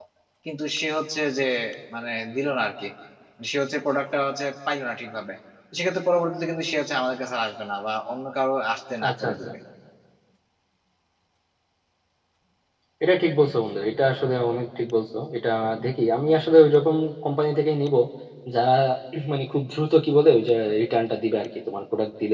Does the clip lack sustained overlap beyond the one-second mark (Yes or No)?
Yes